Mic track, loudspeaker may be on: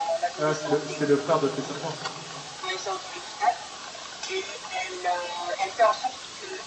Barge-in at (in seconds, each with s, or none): 0.4 s